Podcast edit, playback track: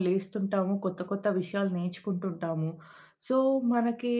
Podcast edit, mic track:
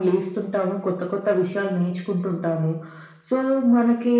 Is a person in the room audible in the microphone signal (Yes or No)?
No